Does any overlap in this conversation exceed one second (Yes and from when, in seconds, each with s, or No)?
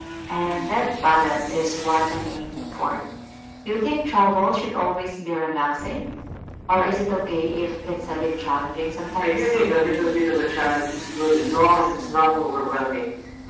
No